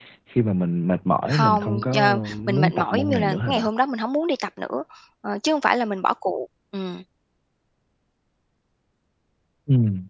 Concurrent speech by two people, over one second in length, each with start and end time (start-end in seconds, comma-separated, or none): 1.4-3.7